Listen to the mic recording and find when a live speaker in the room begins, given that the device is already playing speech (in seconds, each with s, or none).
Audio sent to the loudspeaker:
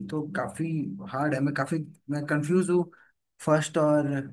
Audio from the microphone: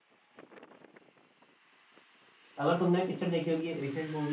2.6 s